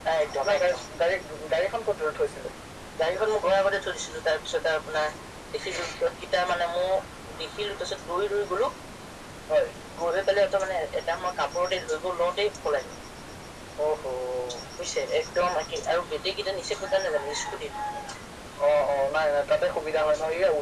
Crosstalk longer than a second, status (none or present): none